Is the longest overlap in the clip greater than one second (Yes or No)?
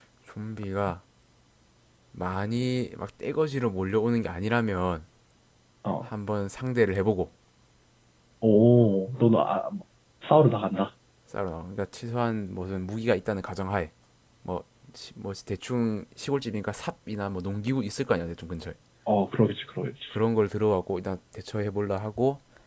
No